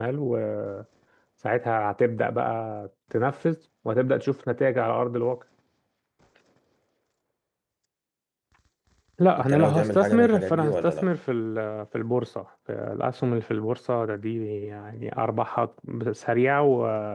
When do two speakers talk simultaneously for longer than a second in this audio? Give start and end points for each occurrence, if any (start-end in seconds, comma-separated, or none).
9.4-11.1